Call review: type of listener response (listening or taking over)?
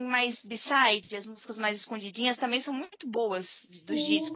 taking over